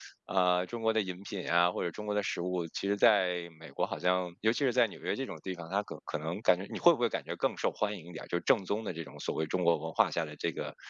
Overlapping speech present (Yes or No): No